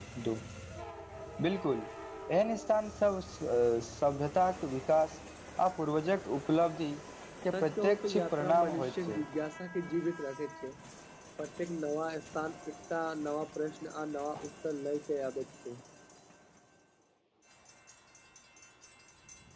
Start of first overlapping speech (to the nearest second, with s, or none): 8 s